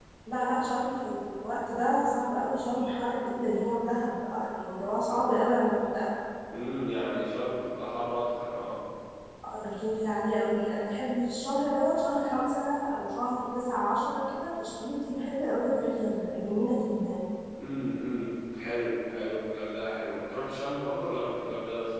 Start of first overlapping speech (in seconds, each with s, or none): none